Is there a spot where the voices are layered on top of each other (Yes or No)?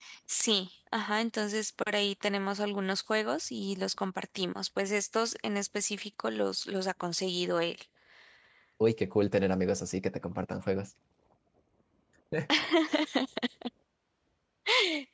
No